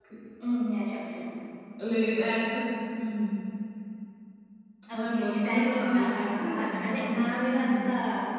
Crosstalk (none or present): present